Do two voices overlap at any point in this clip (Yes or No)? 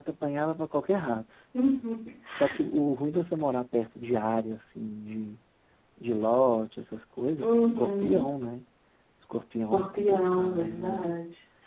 Yes